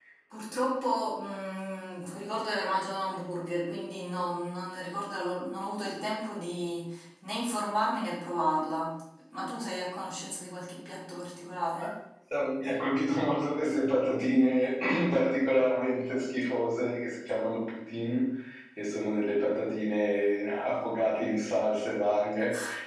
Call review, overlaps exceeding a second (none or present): none